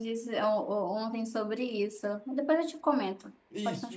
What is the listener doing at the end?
taking over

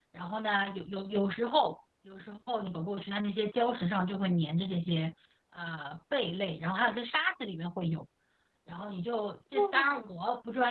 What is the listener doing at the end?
listening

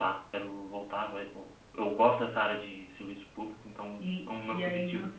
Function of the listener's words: taking over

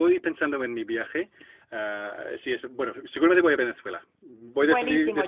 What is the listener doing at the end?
taking over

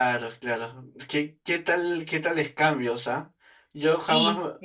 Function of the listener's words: listening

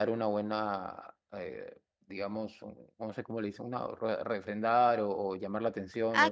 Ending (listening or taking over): taking over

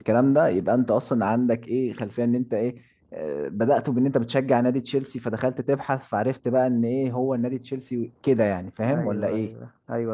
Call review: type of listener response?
taking over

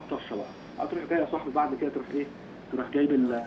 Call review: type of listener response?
listening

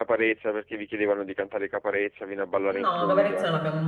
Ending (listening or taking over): taking over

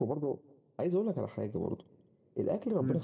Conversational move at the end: listening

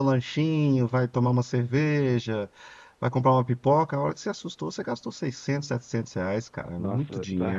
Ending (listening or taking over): taking over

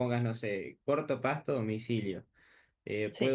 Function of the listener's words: listening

